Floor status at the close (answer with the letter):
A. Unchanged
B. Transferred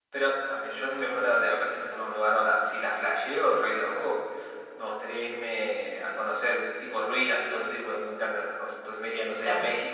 A